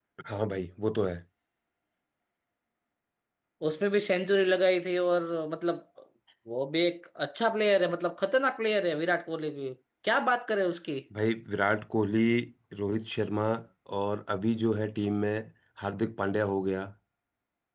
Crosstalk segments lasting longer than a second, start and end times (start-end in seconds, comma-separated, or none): none